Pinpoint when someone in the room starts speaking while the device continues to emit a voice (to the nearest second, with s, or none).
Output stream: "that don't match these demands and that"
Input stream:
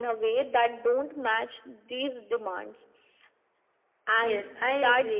4 s